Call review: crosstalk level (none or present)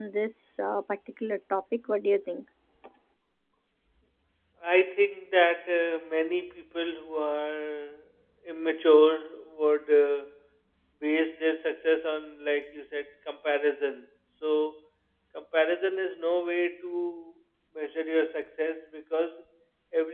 none